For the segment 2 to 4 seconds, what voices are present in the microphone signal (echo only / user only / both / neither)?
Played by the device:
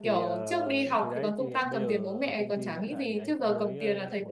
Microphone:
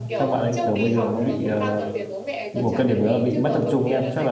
both